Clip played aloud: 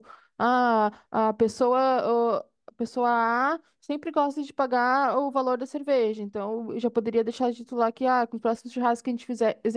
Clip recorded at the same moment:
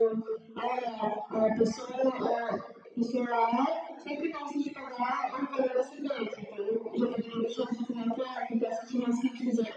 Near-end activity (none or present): none